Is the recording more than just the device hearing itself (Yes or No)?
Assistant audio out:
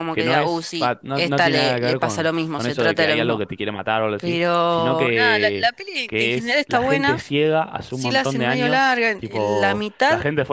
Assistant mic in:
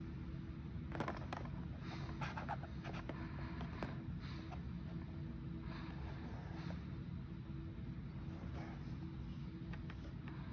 No